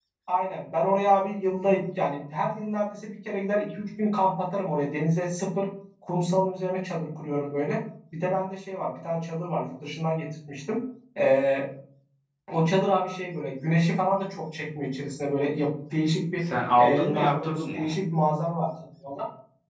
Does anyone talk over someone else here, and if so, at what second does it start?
16.4 s

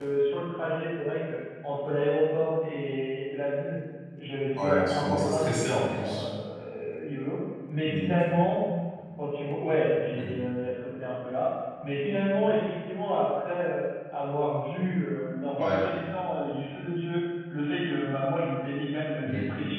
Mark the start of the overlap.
4.6 s

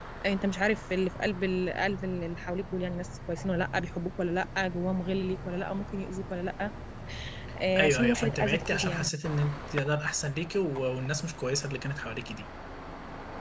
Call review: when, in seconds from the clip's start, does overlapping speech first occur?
7.8 s

